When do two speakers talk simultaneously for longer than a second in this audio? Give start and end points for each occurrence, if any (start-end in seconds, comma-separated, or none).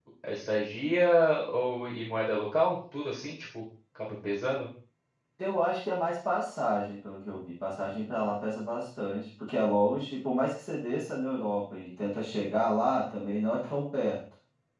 none